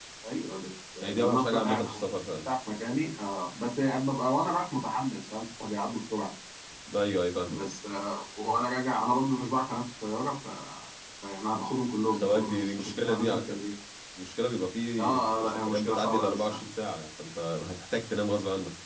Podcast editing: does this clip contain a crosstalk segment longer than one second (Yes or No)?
Yes